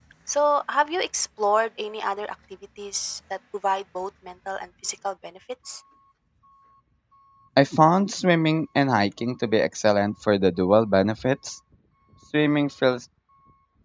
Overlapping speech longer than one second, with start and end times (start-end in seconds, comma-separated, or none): none